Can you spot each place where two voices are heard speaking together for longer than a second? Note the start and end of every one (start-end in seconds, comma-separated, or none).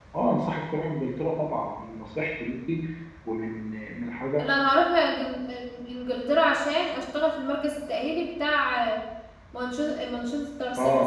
none